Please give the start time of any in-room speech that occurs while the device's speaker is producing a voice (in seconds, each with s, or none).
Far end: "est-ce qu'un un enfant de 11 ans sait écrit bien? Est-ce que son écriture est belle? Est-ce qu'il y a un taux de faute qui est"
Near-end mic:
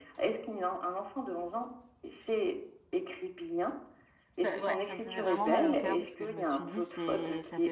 4.4 s